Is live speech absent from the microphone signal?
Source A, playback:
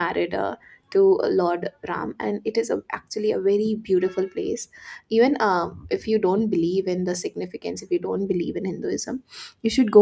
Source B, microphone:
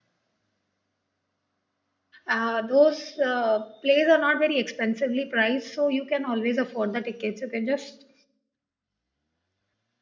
No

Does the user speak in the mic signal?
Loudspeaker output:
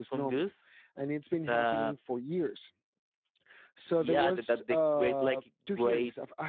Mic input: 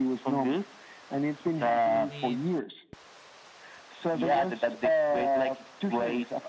Yes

